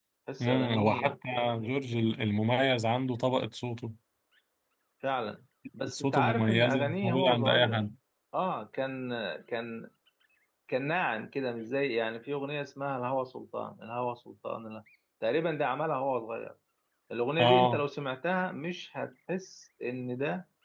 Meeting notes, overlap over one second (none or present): present